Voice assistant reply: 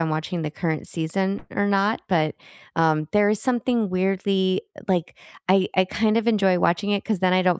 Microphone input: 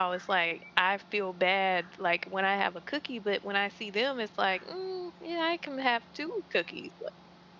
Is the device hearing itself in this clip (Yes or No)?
No